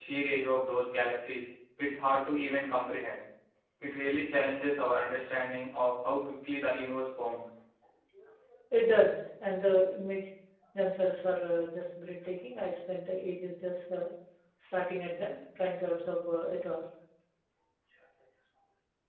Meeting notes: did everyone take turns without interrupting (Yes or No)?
Yes